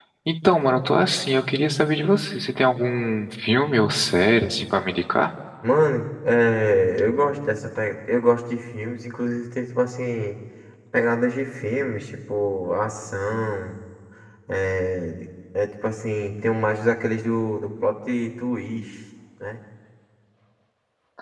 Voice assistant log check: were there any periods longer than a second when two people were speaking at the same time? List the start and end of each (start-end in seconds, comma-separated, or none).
none